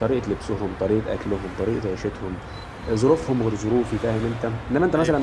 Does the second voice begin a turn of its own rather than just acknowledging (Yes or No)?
No